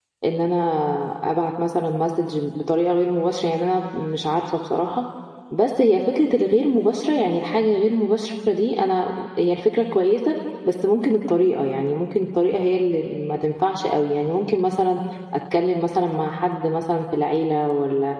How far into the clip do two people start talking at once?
none

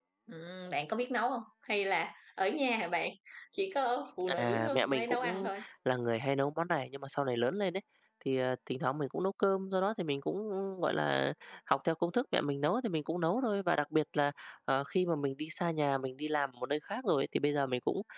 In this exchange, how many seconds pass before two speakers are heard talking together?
4 s

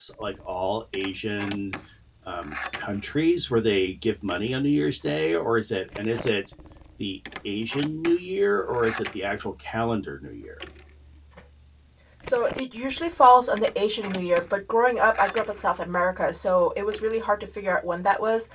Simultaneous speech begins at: none

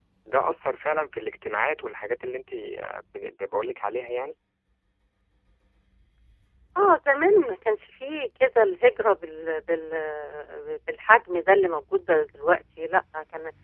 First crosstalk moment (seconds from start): none

